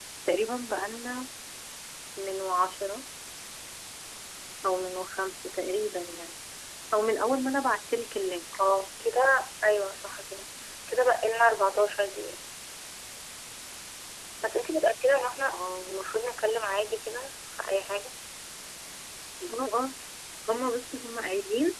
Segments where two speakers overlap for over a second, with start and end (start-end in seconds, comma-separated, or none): none